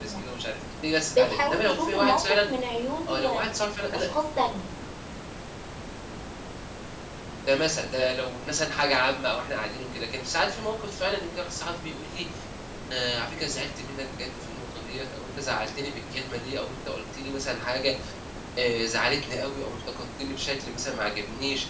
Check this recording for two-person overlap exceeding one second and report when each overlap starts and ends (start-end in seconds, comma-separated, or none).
1.1-2.5